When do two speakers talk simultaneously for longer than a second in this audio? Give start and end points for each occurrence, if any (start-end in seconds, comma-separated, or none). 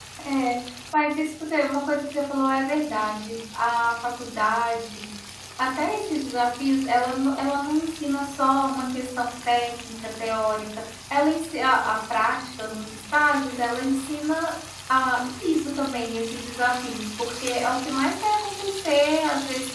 none